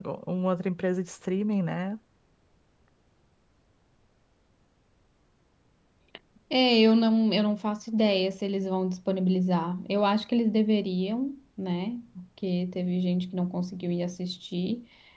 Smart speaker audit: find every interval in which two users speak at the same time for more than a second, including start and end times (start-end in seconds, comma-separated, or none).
none